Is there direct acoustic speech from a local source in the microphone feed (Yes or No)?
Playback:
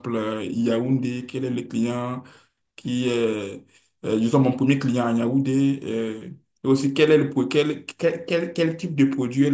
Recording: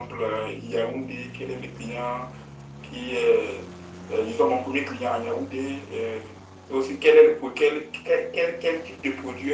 No